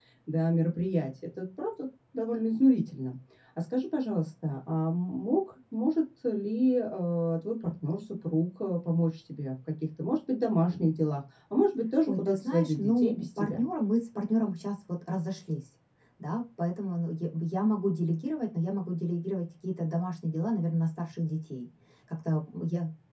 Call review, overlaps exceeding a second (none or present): present